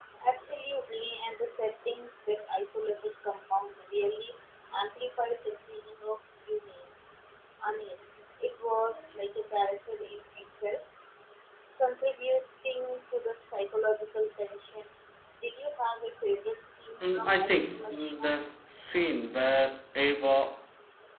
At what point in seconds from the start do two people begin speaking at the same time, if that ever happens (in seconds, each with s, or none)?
17.0 s